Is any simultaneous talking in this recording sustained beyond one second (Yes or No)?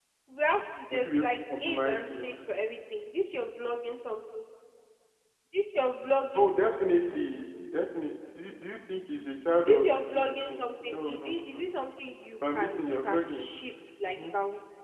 Yes